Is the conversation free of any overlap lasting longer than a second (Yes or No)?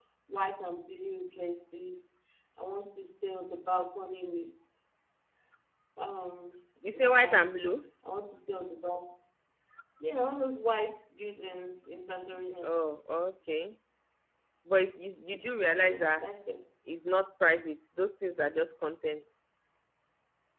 Yes